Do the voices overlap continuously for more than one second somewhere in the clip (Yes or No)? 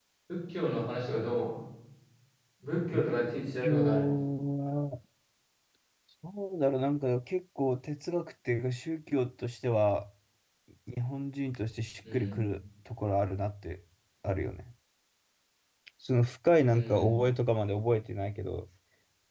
No